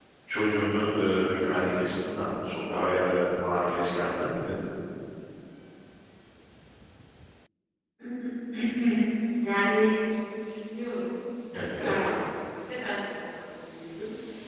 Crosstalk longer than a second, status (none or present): none